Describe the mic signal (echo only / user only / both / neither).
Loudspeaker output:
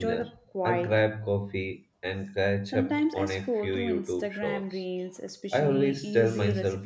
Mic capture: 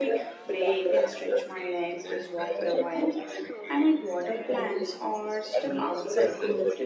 both